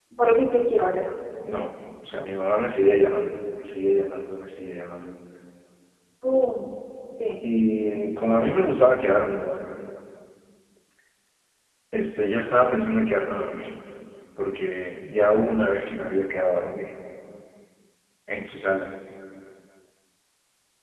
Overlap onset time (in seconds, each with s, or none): none